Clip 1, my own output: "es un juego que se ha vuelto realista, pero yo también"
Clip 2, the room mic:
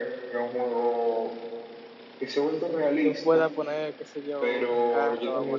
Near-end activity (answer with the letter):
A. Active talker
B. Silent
A